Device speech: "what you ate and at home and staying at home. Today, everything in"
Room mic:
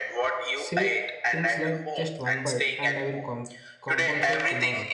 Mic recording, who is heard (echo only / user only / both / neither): both